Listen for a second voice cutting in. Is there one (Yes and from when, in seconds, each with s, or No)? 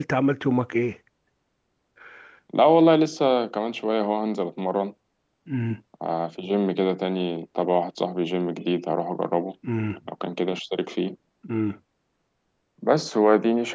No